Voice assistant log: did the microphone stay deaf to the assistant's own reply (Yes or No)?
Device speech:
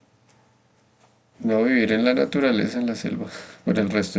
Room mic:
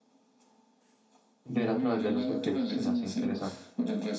No